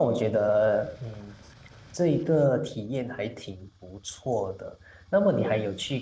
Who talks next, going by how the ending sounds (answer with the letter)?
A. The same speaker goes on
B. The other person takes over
A